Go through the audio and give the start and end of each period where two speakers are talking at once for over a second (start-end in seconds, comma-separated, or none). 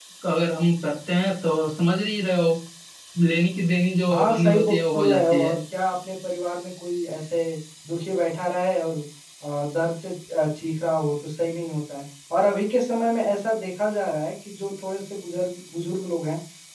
4.1-5.5